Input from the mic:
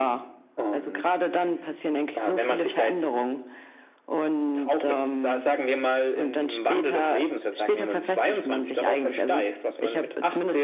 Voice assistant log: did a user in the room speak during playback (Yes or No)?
No